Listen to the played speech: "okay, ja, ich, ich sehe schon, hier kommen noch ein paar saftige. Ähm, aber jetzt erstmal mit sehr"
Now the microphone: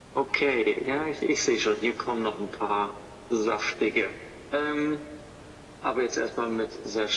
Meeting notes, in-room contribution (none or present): none